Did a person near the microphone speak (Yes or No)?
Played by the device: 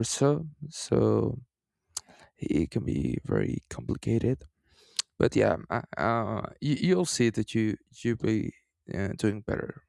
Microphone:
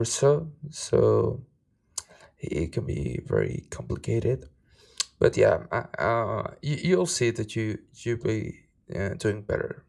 No